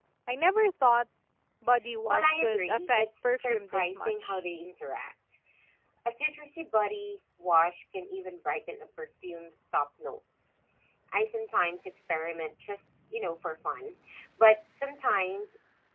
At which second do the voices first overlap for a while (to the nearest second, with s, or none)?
2 s